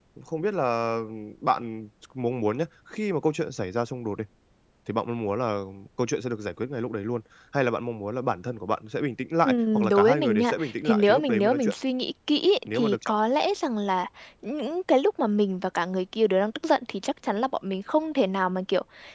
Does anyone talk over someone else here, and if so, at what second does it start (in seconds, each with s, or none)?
9.4 s